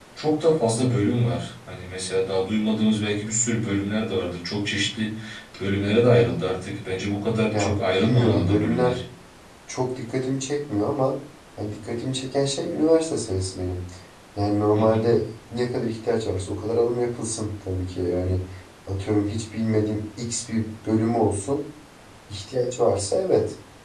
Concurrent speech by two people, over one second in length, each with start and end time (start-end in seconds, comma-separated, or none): 7.5-9.0